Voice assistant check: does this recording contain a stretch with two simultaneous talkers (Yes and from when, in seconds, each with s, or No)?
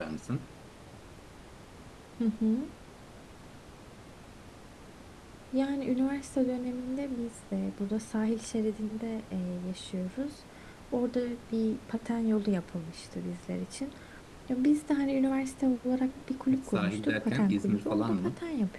Yes, from 16.5 s